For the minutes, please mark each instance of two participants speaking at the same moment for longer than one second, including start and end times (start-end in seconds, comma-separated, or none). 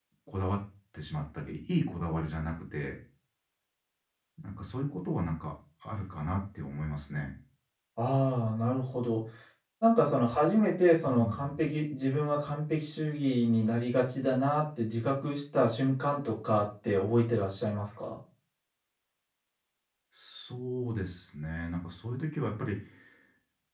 none